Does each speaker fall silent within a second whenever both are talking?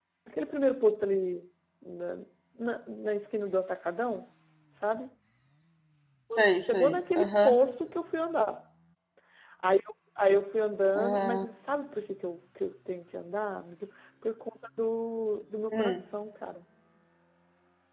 No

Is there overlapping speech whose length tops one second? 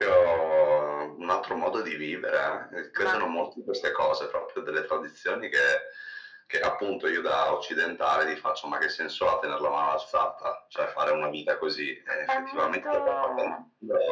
Yes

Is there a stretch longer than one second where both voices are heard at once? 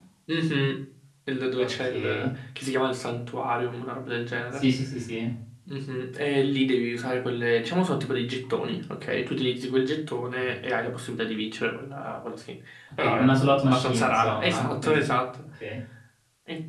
Yes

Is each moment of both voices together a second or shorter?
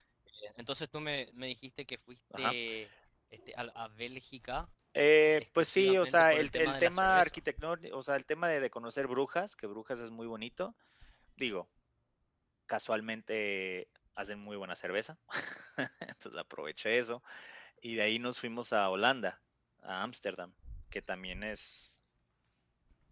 No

